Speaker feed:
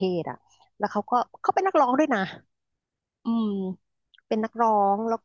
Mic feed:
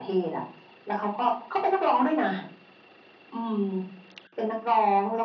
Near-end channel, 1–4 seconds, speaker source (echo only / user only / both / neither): echo only